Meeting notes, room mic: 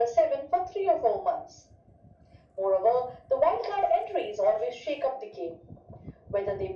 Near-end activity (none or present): none